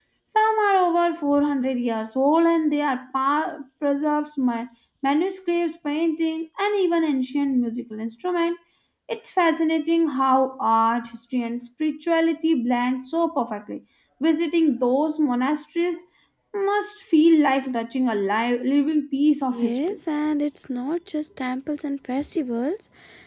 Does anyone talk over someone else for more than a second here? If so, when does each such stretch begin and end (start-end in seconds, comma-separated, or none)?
none